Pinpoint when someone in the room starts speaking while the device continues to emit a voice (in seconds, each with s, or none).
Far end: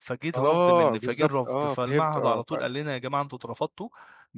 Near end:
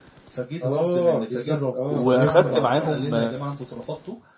1.9 s